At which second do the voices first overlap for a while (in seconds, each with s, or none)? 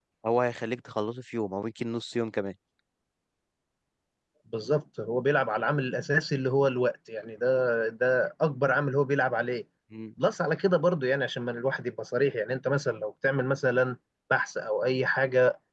none